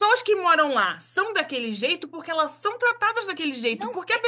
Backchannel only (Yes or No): Yes